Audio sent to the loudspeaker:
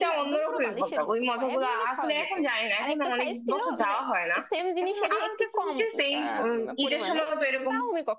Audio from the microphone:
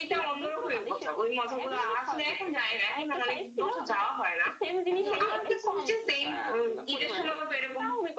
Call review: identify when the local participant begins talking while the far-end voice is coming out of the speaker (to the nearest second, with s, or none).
5 s